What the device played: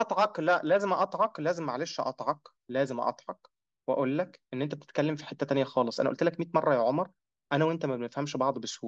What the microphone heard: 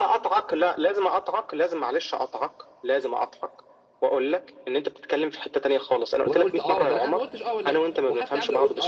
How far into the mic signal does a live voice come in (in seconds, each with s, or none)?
6.3 s